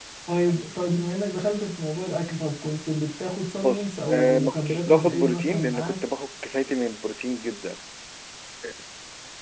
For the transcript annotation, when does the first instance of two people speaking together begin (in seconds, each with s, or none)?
3.6 s